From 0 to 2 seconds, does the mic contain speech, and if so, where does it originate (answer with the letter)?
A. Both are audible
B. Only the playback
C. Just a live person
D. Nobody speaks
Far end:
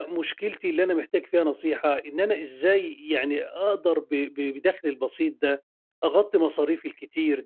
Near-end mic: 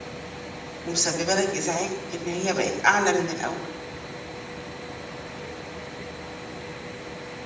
C